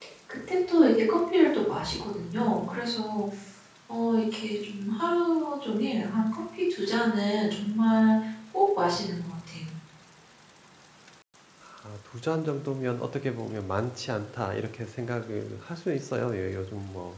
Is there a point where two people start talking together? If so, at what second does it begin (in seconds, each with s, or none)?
none